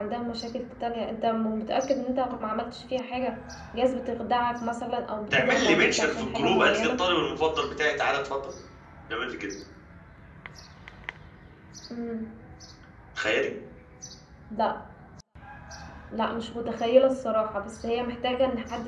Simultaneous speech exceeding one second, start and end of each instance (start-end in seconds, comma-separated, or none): 5.3-7.0